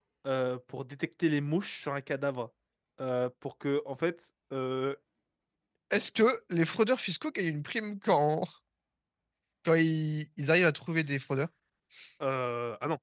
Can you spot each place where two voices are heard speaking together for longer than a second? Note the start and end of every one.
none

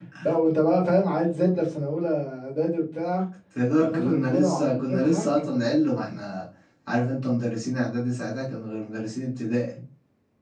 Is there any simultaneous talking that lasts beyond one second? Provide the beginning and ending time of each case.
3.8-5.2

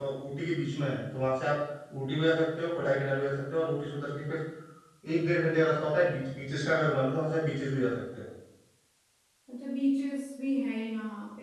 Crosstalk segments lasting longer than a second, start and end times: none

